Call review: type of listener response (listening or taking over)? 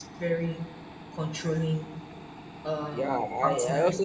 taking over